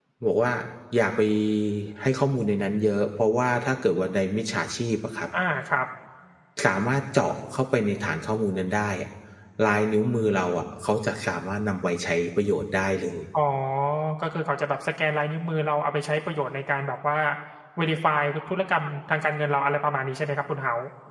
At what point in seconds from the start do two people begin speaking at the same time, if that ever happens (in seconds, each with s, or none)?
none